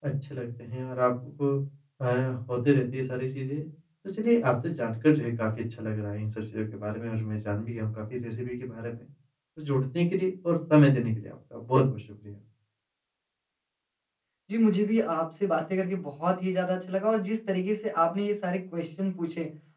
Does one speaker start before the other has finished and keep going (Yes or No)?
No